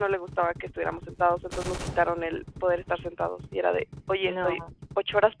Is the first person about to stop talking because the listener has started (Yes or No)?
No